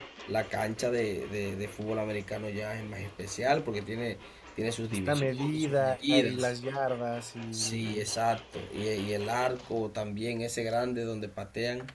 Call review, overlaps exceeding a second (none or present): present